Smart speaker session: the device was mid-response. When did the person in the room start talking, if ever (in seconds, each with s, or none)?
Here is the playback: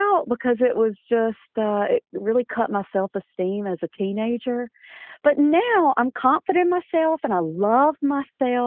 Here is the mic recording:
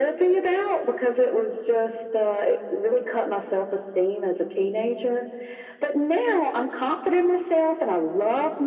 none